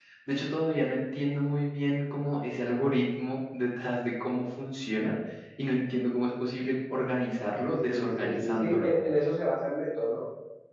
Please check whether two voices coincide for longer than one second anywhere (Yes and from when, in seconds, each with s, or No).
Yes, from 7.6 s